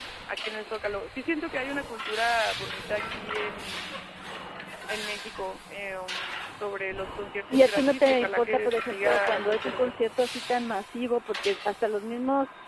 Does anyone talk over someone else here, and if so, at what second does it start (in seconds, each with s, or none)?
7.5 s